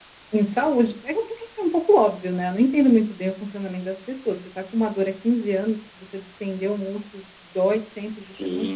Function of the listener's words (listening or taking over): taking over